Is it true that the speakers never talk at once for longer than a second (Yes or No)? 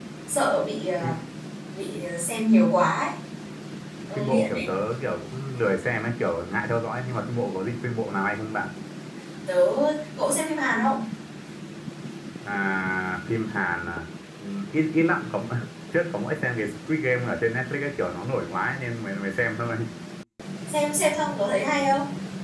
Yes